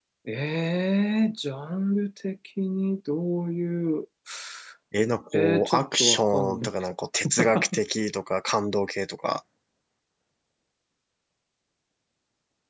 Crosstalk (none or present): present